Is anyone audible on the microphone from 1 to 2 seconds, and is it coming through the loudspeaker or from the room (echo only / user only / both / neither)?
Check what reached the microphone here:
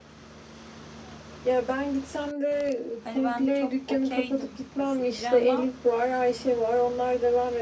echo only